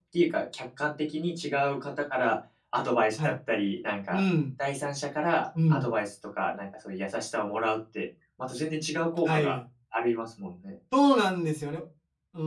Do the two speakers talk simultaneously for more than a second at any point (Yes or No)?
No